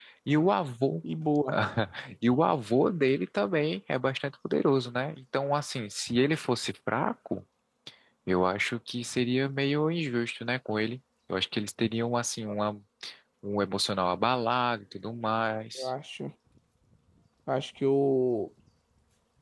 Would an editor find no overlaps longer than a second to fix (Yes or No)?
Yes